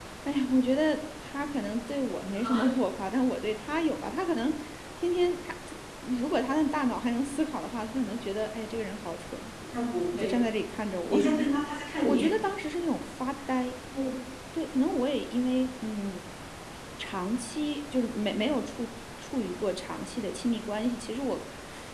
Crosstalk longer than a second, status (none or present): none